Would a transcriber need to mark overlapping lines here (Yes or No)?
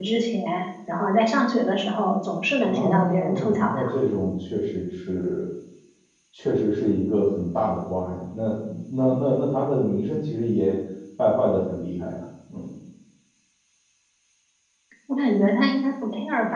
Yes